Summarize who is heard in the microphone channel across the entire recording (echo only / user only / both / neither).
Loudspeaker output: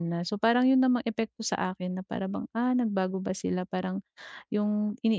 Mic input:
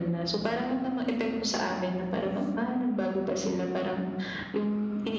echo only